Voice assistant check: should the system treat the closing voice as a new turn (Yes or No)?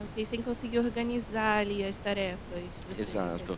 Yes